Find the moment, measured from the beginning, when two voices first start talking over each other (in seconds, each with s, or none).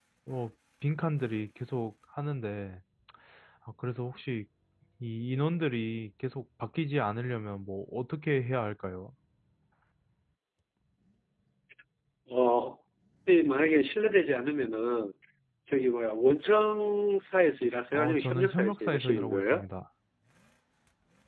17.9 s